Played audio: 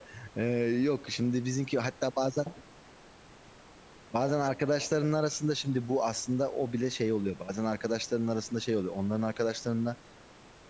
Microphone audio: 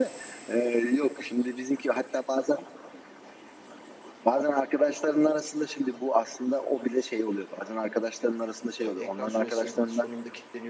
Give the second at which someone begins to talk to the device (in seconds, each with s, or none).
8.8 s